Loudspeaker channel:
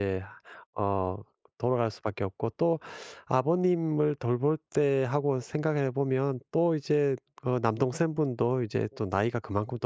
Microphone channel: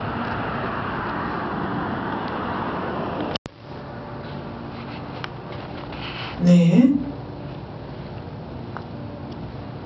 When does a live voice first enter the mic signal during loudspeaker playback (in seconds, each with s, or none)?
6.4 s